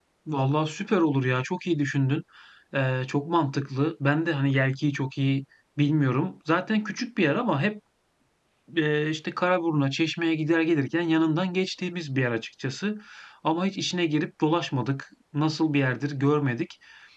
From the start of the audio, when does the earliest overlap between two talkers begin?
none

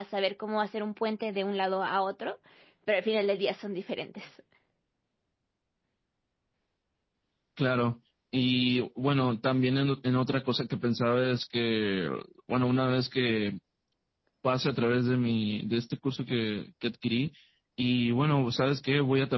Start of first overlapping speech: none

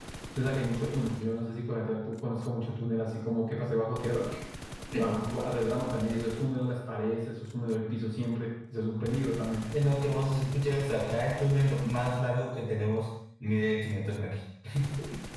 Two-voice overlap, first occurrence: none

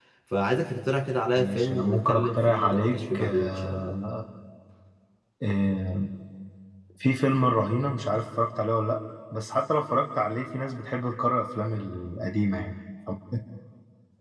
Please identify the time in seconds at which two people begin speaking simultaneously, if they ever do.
1.4 s

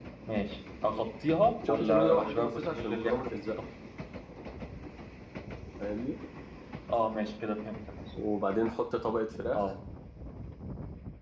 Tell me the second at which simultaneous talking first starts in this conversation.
1.6 s

